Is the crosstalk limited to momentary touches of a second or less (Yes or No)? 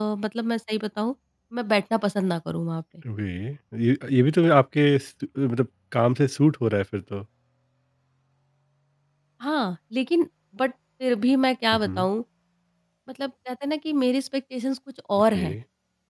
Yes